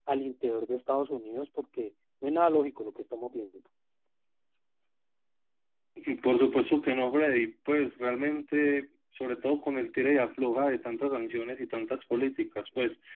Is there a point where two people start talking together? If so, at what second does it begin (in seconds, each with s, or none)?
none